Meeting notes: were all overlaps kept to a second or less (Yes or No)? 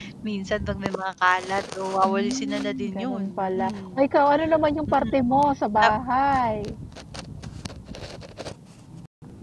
No